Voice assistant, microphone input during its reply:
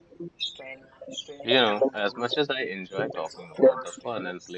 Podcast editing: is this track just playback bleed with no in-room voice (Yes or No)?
No